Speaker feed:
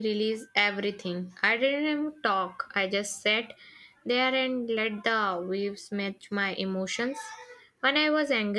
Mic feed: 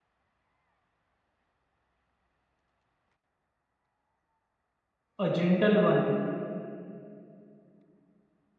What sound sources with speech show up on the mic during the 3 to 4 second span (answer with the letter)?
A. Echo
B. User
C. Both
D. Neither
D